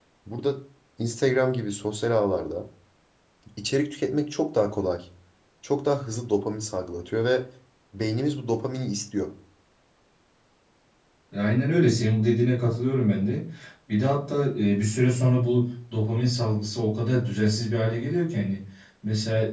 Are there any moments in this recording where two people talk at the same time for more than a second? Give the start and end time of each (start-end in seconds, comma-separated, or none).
none